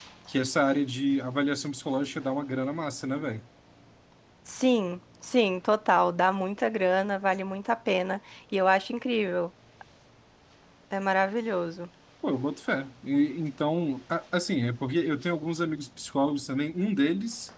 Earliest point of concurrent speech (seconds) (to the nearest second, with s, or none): none